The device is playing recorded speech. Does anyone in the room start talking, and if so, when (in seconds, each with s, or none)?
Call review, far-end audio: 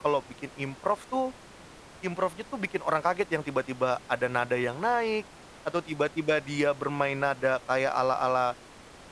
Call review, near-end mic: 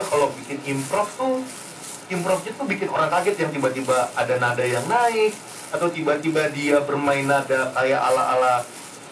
none